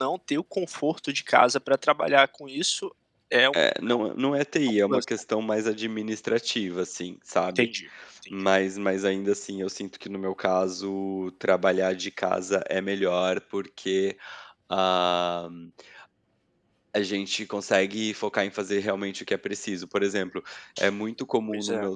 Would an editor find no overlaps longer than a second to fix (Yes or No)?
Yes